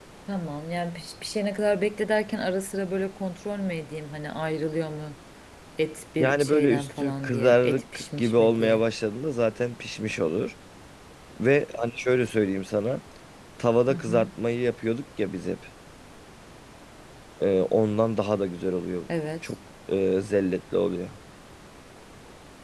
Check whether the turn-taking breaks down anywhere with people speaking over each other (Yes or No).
Yes